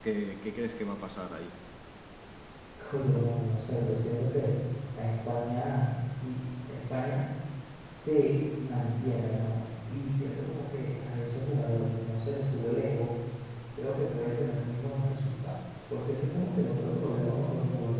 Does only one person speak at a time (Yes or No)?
Yes